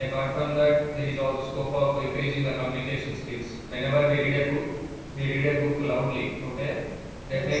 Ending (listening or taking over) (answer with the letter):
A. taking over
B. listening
B